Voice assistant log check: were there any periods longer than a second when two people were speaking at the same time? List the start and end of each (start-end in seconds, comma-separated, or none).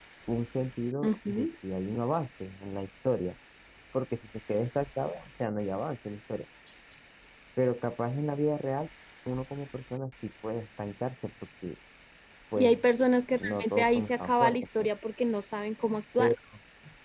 13.4-14.9